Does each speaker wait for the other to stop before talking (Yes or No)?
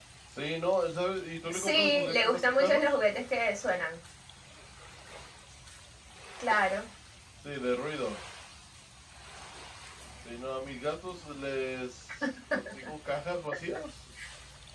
No